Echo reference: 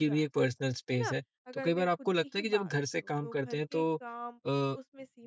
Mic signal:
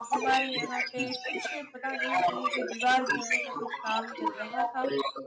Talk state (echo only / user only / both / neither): both